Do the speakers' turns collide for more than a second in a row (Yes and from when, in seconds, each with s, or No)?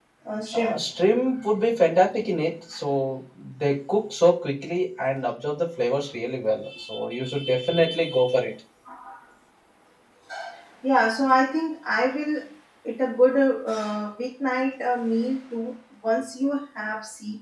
No